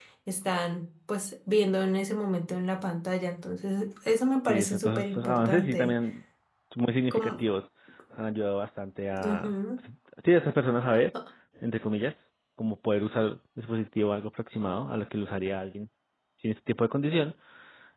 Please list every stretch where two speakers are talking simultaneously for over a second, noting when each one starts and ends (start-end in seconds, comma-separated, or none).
4.4-5.9